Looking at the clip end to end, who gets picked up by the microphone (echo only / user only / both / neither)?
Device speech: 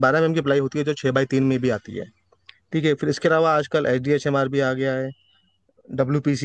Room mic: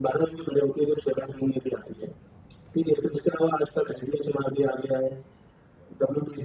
echo only